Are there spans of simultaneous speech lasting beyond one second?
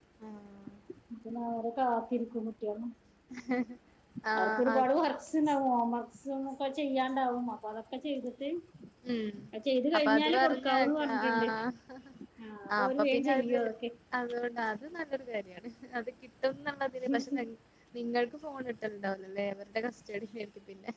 Yes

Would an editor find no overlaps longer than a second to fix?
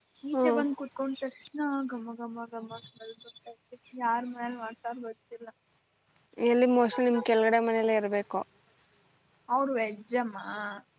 Yes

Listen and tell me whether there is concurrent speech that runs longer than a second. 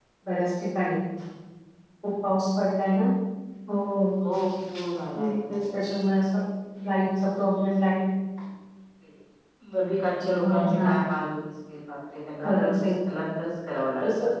No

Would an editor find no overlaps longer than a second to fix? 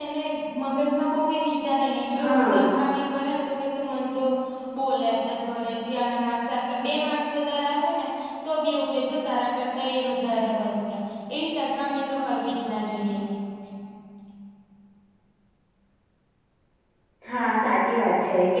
Yes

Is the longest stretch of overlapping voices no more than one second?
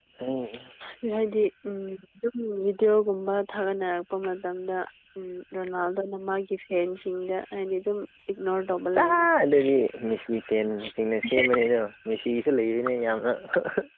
Yes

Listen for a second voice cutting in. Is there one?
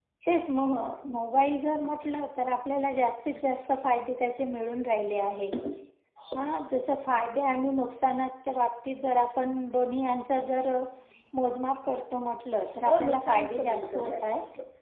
Yes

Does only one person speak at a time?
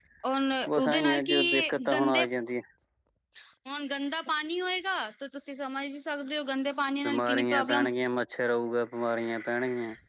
No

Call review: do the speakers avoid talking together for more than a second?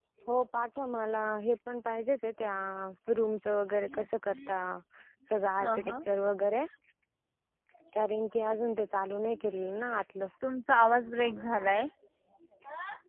Yes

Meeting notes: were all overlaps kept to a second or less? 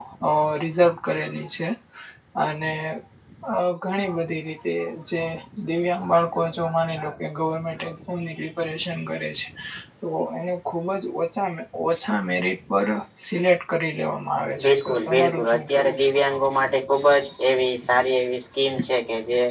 No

